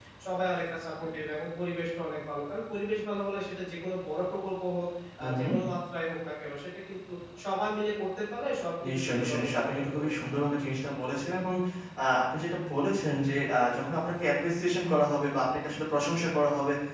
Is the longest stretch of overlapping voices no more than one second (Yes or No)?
No